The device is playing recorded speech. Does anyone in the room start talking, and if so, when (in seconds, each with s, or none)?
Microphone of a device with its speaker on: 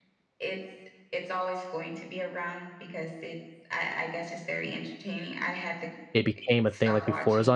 6.1 s